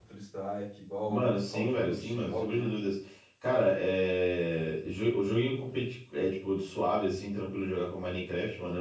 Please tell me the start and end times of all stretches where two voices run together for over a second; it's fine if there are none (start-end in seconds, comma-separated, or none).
1.1-2.7